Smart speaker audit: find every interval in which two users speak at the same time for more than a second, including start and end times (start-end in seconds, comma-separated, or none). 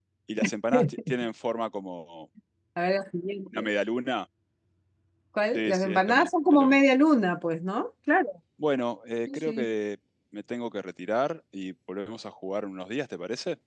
5.5-6.8